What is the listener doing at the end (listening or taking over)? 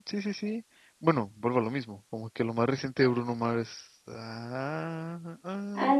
taking over